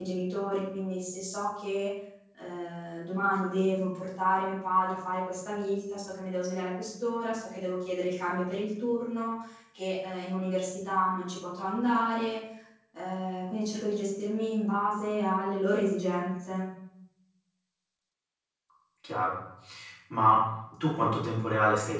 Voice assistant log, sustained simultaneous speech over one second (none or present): none